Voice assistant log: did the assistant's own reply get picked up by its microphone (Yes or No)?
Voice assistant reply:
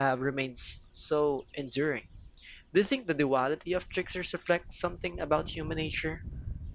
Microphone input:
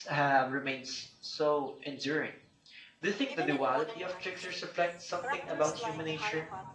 Yes